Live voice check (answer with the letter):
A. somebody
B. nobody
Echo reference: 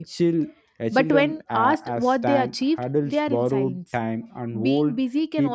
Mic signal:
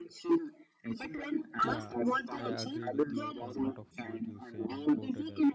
A